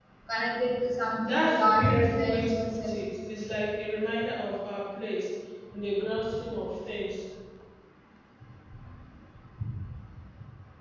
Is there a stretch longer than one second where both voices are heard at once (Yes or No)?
Yes